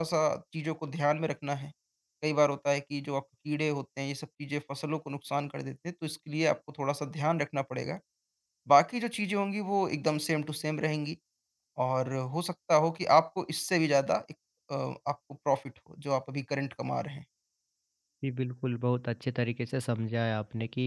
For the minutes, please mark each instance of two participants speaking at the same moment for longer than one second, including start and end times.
none

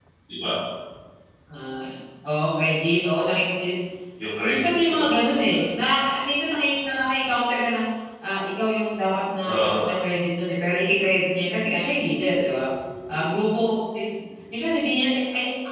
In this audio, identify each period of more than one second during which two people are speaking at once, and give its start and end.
4.4-5.7

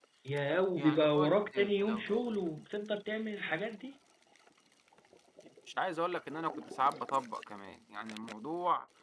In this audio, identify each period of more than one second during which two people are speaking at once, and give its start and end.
0.8-2.1

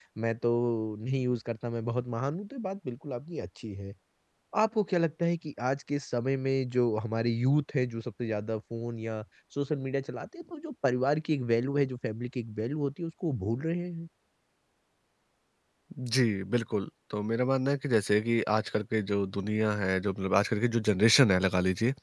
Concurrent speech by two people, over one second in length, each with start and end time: none

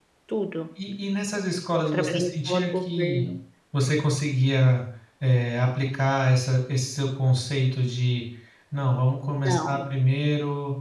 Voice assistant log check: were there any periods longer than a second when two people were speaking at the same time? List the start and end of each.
1.8-3.3

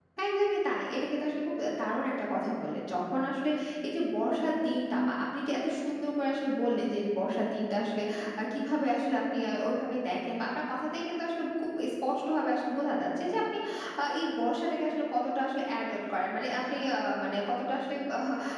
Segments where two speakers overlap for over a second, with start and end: none

